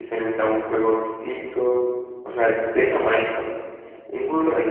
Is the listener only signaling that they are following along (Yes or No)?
Yes